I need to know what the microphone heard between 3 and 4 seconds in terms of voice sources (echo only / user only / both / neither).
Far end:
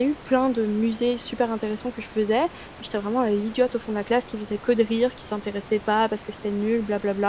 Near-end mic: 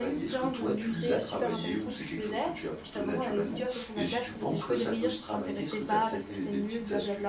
both